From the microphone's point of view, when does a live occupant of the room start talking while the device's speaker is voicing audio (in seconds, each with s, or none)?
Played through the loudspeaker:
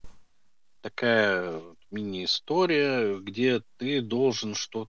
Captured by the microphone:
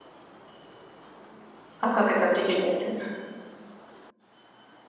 1.8 s